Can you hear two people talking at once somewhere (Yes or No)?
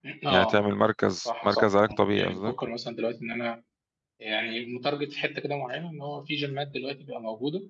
Yes